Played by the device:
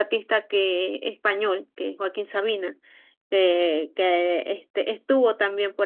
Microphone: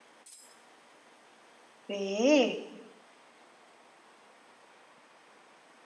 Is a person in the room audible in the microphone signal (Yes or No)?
Yes